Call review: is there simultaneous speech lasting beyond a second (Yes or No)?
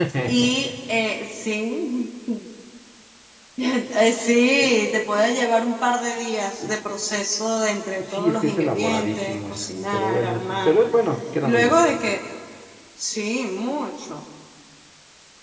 Yes